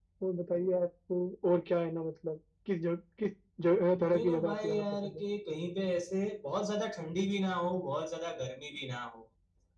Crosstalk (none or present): present